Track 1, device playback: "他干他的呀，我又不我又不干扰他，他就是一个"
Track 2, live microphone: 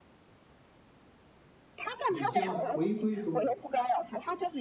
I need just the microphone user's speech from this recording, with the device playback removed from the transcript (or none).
你将回归中国。